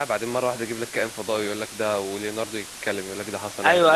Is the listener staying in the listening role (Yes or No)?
No